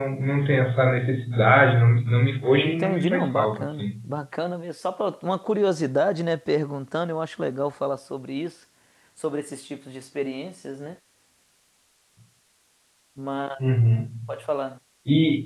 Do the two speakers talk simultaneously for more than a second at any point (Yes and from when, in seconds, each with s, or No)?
Yes, from 2.6 s